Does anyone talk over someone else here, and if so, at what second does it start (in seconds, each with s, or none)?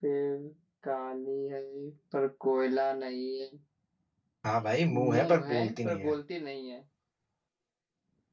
4.9 s